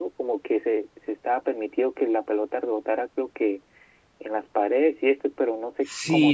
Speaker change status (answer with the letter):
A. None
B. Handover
B